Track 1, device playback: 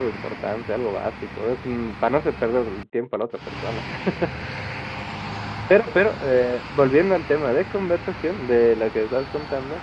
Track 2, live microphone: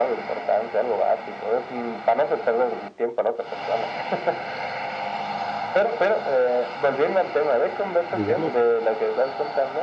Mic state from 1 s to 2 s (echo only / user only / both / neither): echo only